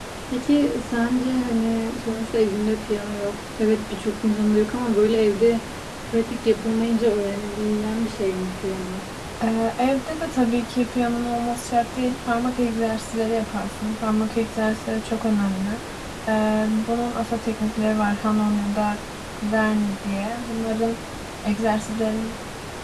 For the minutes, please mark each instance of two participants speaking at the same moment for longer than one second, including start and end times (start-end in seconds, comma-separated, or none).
none